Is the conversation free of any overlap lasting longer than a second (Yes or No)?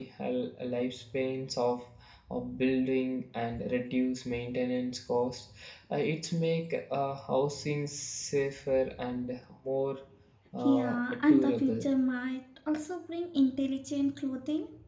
No